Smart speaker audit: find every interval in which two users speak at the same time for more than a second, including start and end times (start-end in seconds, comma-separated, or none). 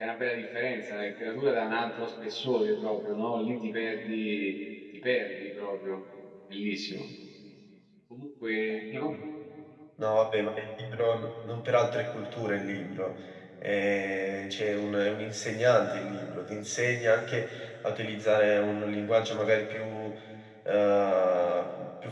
none